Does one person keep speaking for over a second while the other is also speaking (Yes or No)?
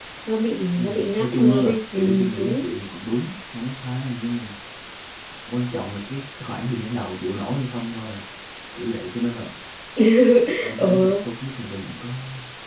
Yes